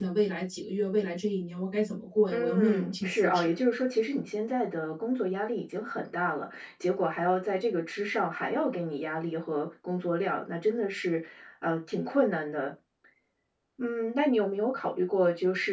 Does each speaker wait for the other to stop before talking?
No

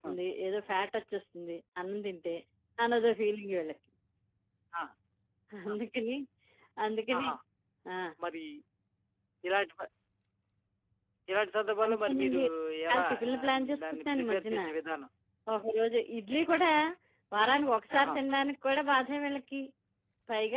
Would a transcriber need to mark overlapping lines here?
Yes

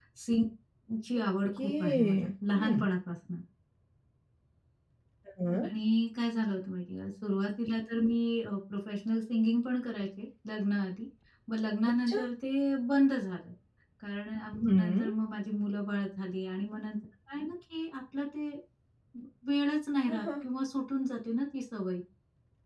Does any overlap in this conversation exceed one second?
Yes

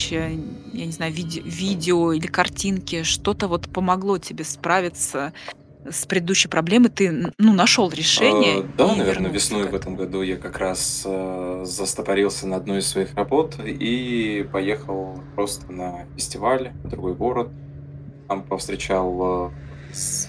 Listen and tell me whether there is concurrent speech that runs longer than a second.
Yes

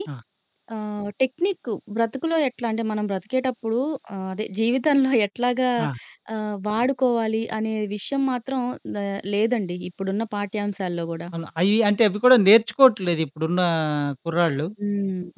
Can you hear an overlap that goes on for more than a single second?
No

